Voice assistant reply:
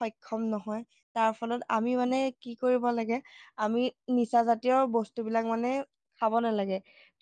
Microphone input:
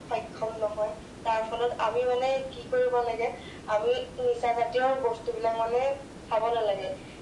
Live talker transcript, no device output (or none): none